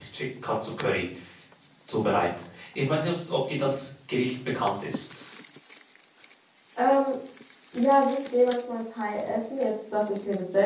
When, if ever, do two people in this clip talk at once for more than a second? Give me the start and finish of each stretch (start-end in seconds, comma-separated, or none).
none